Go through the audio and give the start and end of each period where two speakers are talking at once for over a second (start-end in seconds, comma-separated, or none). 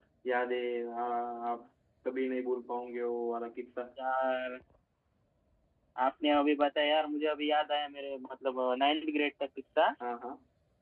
none